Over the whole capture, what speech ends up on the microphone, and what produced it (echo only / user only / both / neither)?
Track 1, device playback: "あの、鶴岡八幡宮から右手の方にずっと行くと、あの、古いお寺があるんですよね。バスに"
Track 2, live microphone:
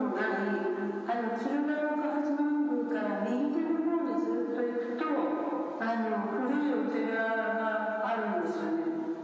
echo only